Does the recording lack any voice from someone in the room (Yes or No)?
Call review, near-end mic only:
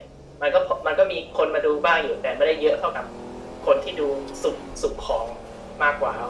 Yes